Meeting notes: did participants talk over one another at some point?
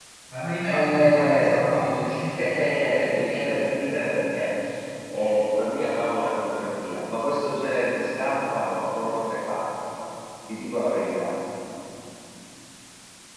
Yes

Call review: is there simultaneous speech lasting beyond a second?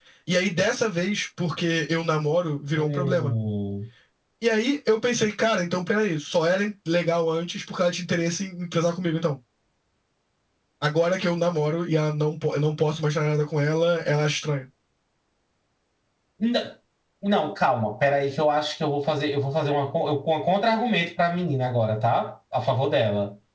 No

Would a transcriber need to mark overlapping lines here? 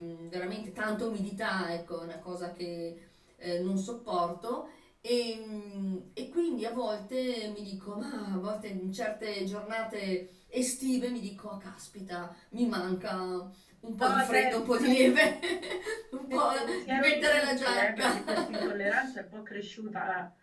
Yes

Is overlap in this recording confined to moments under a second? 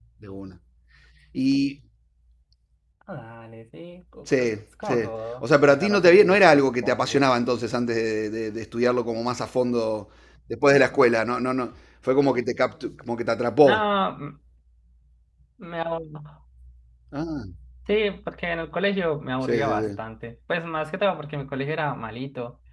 No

